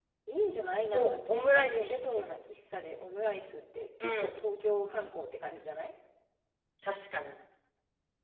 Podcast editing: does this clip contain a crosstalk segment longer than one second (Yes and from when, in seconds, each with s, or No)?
Yes, from 0.9 s